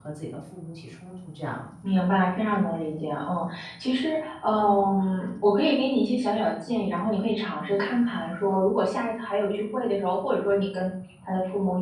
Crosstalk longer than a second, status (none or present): none